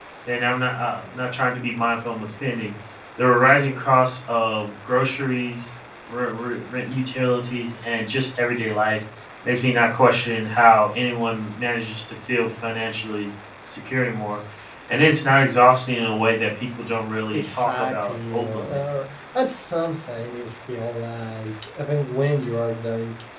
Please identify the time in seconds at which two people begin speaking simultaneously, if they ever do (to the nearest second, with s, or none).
17 s